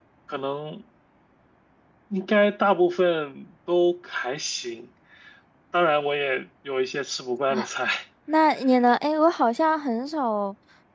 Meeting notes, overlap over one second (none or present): none